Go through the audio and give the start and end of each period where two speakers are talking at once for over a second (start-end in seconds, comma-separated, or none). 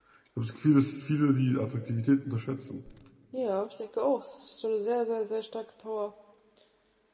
none